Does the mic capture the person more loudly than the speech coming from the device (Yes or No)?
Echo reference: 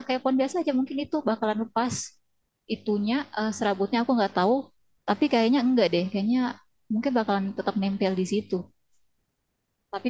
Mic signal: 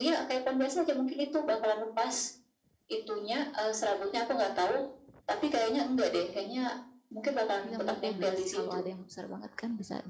No